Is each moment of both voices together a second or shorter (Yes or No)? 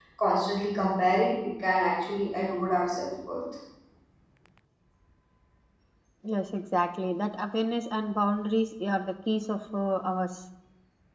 Yes